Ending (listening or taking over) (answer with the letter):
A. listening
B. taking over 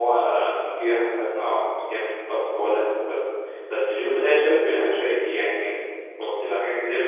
B